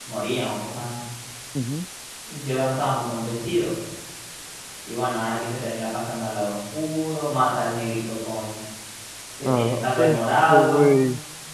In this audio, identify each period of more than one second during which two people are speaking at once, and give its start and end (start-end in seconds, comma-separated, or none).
9.4-10.9